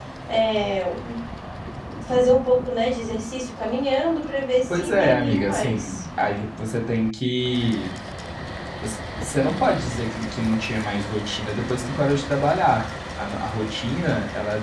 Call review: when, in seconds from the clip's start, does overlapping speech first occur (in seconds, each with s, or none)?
4.7 s